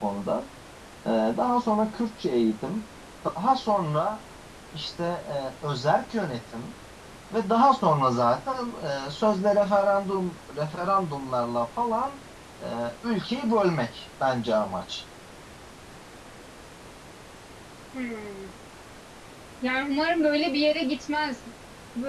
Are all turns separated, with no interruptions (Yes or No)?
Yes